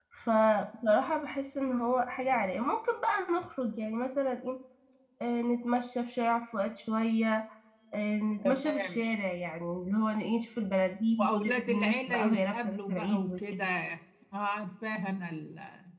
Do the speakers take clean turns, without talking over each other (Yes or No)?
No